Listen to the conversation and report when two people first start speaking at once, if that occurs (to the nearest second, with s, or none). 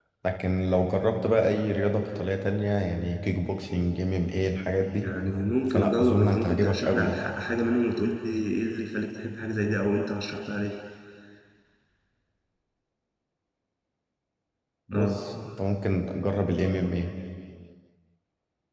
6 s